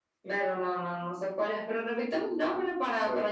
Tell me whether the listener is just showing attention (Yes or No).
No